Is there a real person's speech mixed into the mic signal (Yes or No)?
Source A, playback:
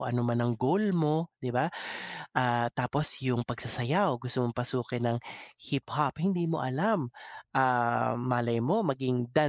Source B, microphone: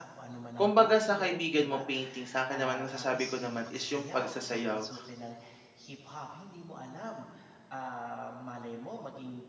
Yes